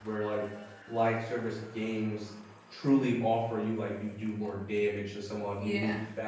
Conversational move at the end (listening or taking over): listening